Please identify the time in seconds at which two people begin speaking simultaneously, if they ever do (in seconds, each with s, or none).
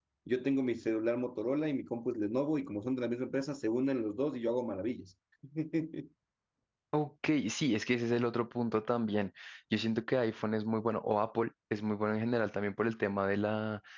none